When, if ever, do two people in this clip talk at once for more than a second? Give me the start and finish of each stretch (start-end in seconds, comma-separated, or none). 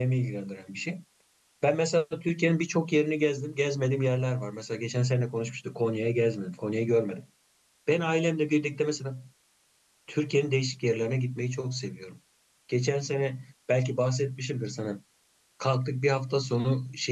none